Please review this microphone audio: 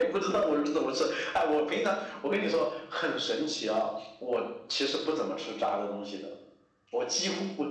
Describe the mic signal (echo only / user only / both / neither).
echo only